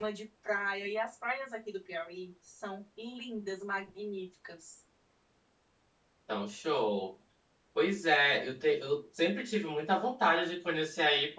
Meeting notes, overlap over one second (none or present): none